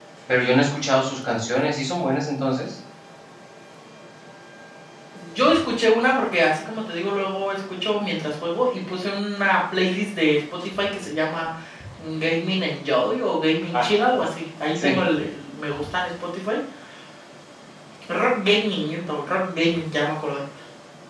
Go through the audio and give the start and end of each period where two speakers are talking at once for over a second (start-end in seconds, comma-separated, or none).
none